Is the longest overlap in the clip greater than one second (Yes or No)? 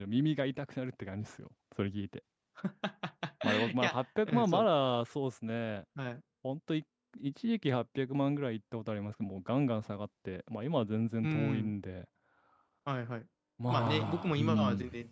Yes